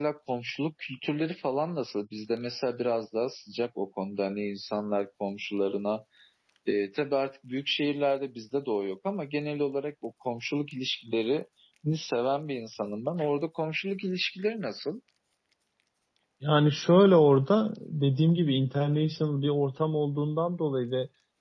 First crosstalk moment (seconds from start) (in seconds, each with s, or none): none